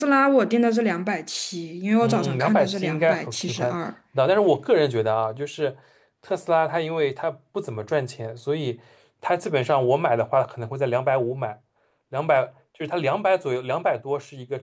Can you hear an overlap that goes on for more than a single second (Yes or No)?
Yes